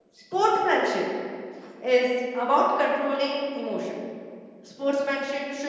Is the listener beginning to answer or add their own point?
No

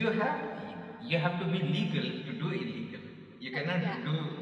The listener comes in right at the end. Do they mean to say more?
No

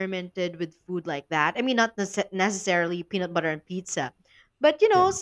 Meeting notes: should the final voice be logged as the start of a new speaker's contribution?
No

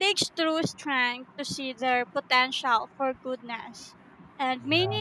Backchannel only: Yes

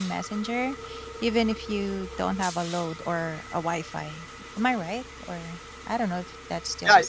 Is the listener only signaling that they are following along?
No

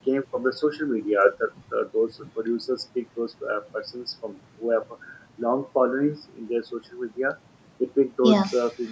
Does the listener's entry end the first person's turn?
No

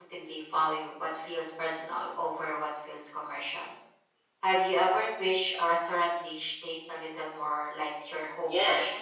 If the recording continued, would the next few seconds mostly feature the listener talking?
Yes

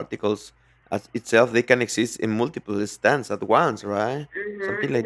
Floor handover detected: Yes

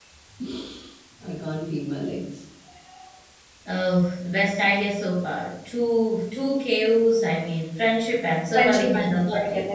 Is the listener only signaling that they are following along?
No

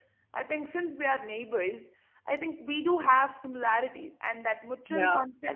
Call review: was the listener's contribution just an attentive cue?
Yes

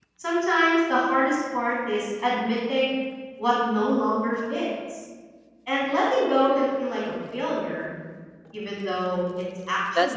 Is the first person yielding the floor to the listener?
Yes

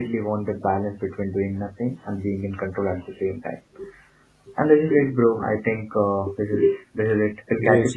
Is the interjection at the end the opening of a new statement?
Yes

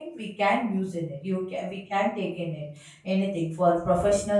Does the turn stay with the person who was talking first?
Yes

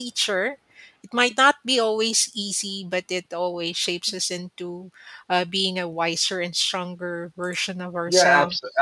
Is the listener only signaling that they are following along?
No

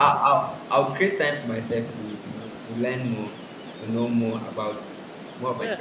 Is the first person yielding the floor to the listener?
Yes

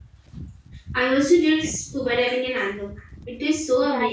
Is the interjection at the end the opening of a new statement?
Yes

